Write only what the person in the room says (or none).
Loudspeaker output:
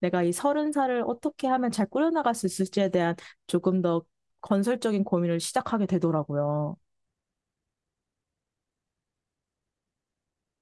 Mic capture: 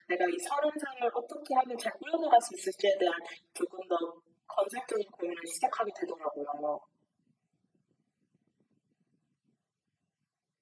none